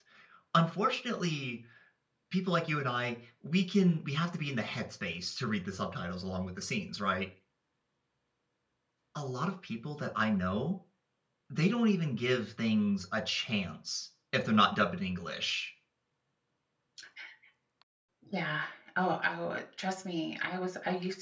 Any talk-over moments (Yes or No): No